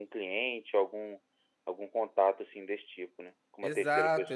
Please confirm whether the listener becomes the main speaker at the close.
Yes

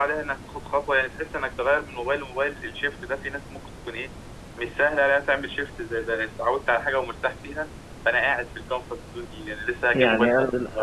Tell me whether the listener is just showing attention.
No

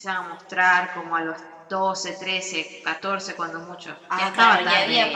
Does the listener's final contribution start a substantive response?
Yes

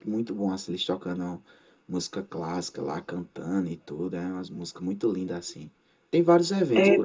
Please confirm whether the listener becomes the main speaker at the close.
No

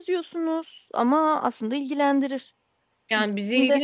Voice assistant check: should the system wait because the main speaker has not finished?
No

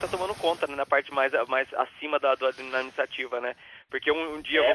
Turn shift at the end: No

